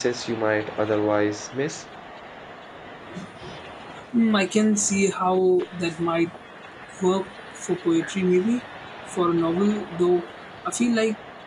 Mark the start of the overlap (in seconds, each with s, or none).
none